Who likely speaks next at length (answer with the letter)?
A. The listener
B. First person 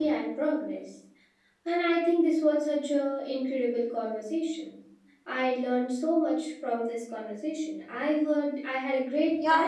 A